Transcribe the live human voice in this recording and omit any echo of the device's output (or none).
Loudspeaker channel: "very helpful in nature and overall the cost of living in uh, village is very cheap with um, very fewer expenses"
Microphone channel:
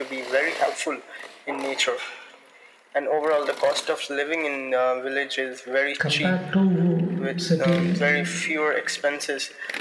compared to city